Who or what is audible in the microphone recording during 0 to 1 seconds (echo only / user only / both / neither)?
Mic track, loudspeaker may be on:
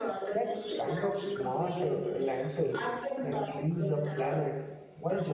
both